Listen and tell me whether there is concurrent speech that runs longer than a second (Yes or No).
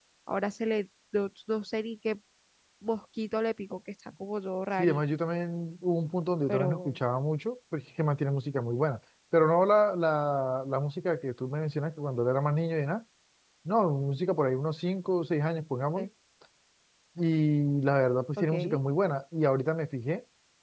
No